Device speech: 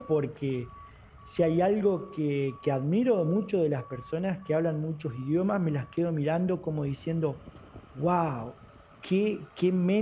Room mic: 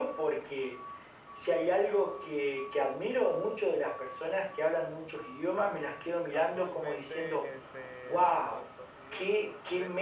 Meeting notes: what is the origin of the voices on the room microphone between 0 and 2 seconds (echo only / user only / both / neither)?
echo only